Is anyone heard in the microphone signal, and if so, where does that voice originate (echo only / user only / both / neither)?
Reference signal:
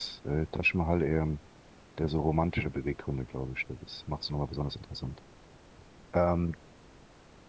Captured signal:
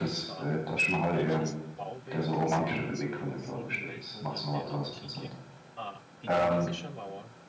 both